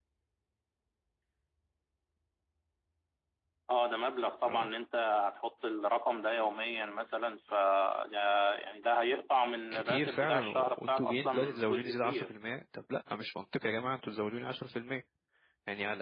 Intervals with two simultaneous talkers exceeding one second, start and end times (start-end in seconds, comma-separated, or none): 9.7-12.3